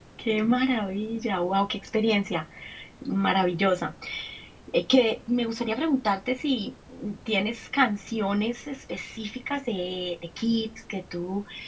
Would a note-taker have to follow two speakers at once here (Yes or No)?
No